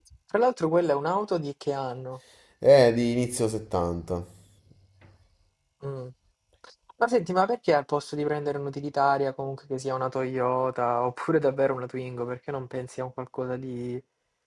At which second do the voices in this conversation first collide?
none

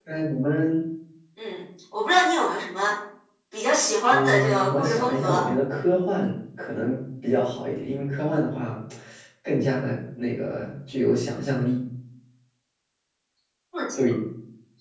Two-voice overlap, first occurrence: 4 s

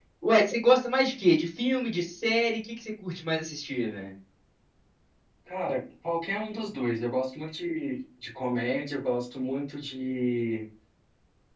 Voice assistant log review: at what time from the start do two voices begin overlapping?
none

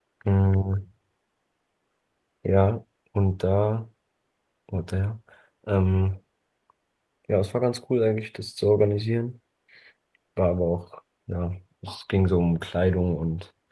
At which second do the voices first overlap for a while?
none

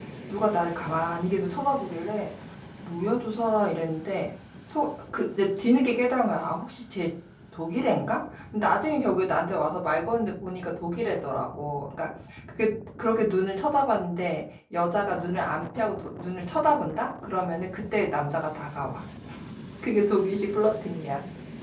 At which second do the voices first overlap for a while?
none

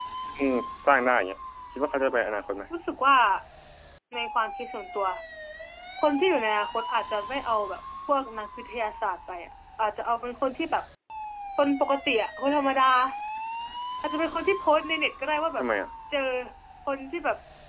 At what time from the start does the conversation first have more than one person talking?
none

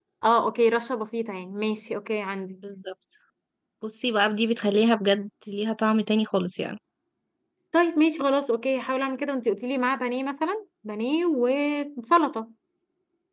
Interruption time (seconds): none

